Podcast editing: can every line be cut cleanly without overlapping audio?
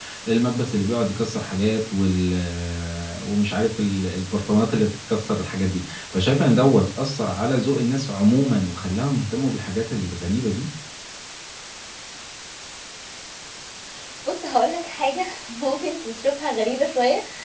Yes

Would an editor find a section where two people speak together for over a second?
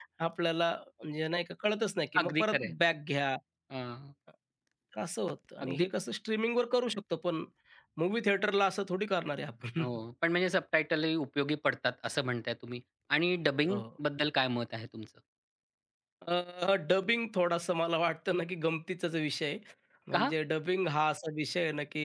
No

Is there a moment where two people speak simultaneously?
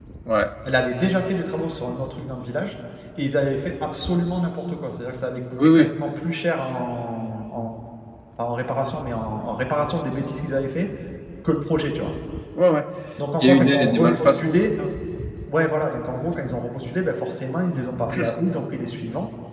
Yes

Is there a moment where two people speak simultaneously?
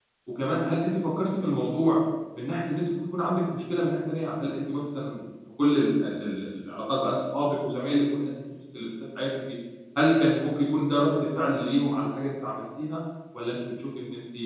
No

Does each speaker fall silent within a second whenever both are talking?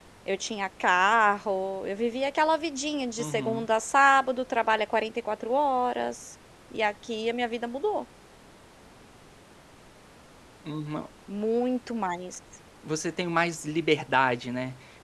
Yes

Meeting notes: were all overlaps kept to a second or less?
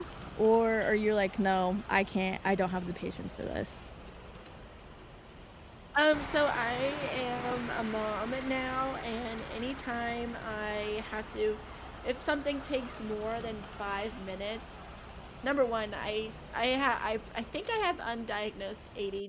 Yes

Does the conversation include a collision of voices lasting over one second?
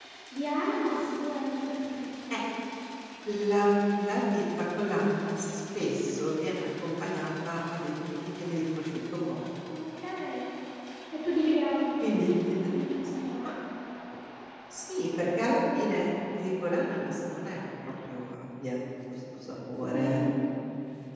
No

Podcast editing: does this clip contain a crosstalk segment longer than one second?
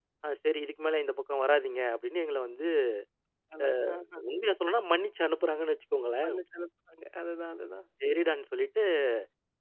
No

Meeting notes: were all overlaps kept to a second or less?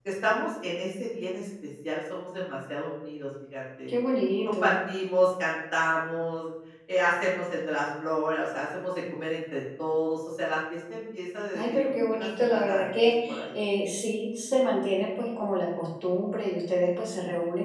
No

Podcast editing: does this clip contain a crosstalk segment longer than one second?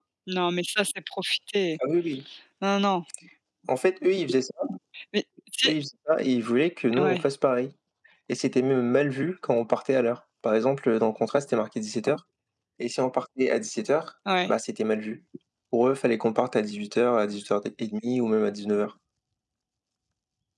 No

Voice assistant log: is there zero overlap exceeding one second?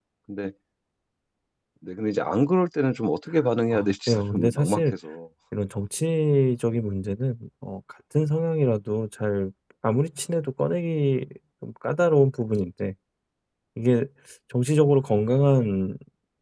No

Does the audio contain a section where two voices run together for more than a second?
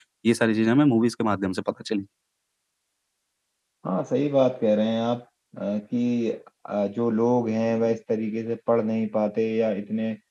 No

